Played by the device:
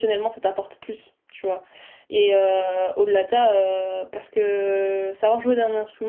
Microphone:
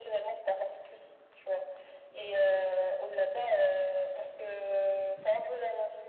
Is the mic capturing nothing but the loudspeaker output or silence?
Yes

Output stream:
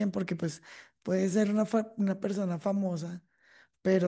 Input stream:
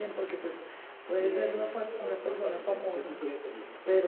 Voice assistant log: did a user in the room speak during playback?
Yes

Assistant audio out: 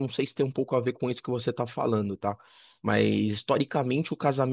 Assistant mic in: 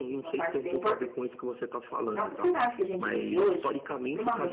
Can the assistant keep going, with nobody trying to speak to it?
No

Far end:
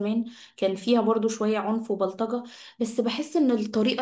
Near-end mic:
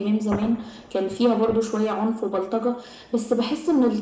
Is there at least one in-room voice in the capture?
No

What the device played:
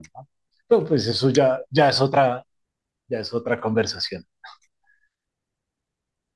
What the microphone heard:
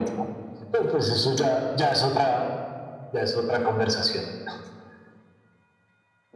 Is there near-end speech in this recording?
No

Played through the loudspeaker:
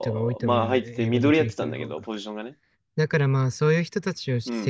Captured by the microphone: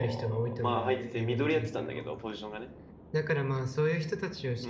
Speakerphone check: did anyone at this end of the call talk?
No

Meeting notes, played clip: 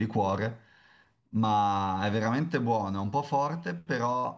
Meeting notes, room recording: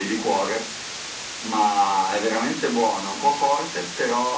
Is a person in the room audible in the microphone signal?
No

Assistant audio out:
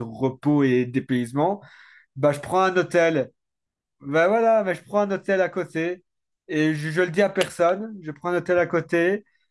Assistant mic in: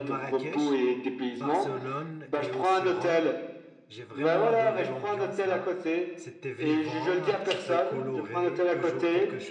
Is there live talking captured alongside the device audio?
Yes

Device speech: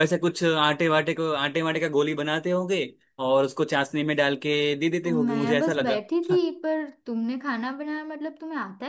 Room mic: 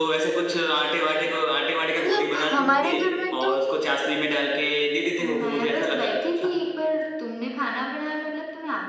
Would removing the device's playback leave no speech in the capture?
No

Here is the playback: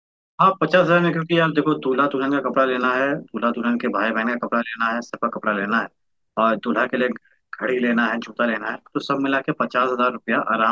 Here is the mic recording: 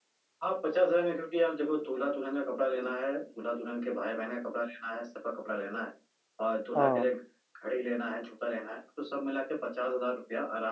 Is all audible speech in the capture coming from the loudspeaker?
No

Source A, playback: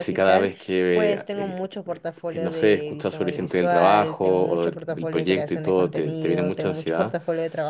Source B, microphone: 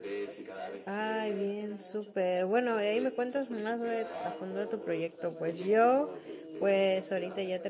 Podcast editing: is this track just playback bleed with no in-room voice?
No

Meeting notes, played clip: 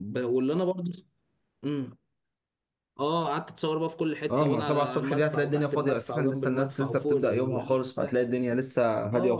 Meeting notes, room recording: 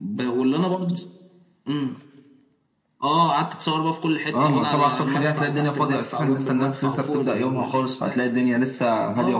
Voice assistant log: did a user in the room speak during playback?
No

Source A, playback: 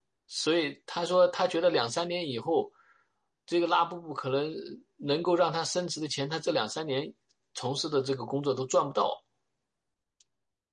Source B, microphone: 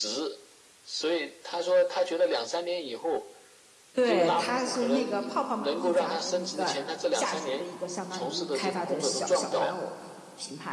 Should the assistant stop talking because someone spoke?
Yes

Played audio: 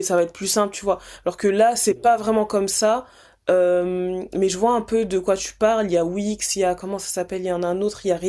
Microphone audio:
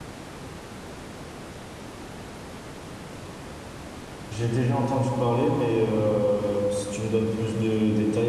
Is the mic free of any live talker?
No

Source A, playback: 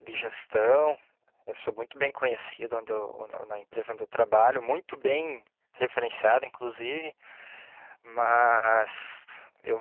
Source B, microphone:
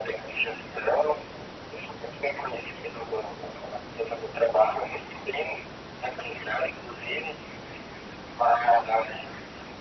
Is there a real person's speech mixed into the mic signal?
No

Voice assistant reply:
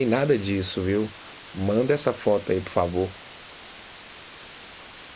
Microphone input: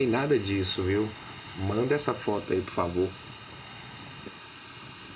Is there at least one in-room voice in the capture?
No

